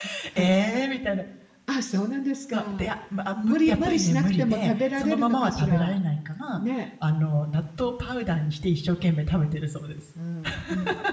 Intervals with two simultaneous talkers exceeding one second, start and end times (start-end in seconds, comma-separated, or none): 3.4-6.0